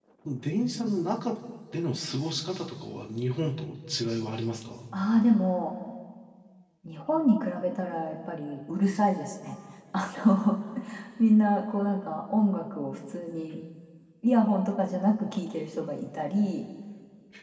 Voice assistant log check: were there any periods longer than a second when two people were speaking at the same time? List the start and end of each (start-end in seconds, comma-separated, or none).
none